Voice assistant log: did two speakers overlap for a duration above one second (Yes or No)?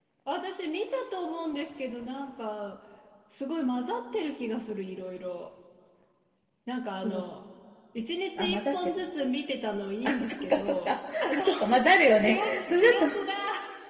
Yes